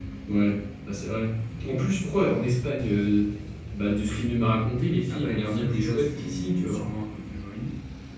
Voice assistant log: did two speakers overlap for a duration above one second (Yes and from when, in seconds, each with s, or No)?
Yes, from 5.1 s